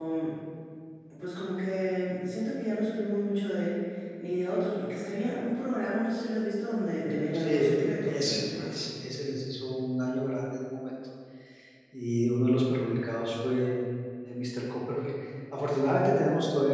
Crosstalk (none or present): present